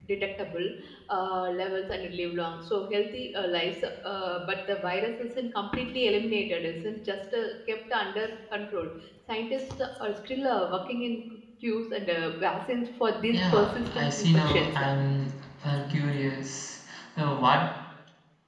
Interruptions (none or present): present